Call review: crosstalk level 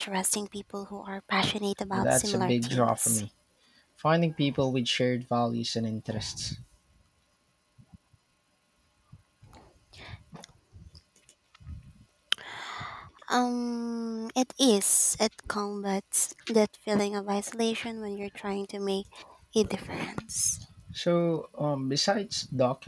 present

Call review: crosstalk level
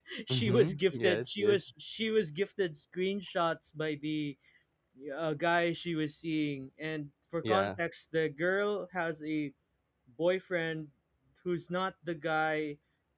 present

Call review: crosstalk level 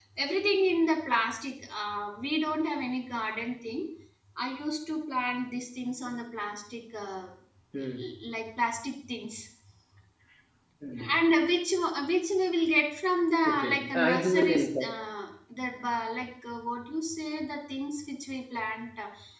present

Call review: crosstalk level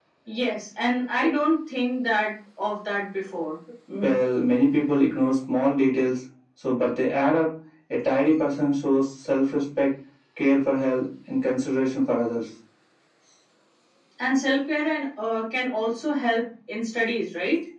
none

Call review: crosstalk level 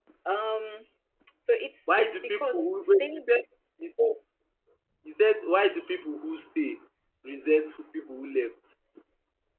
present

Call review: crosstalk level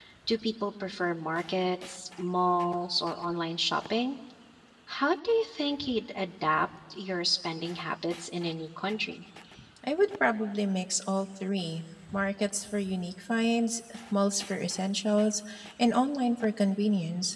none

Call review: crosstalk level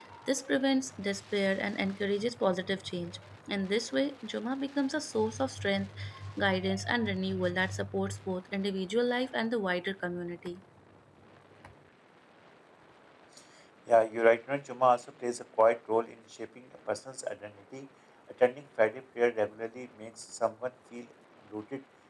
none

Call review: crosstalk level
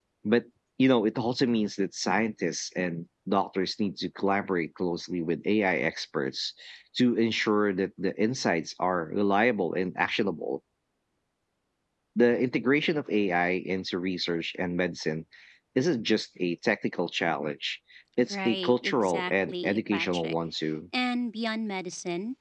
present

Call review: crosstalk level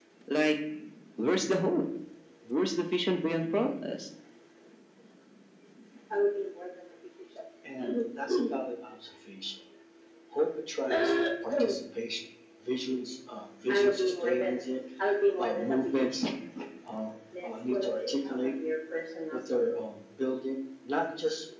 none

